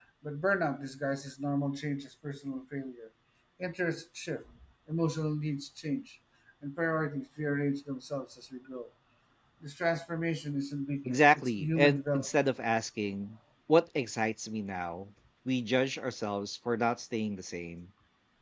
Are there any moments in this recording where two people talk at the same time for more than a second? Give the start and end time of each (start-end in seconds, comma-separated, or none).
11.1-12.4